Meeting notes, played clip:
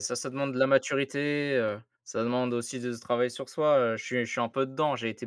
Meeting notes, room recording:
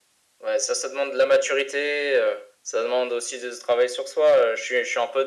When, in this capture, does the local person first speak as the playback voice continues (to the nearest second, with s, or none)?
none